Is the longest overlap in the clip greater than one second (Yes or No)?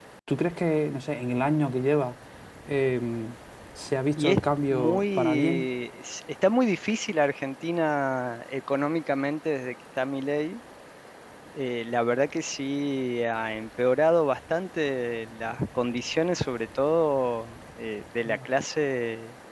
Yes